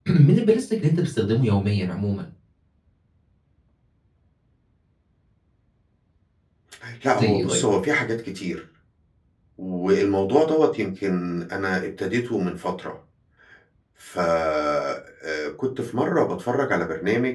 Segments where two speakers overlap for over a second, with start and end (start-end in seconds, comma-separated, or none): none